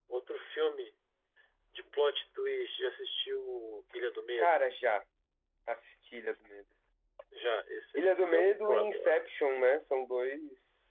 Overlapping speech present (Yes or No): Yes